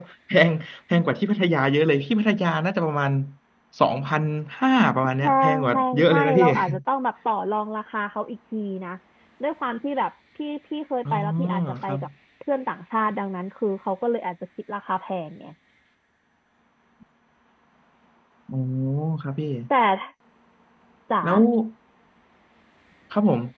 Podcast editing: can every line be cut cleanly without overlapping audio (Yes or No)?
No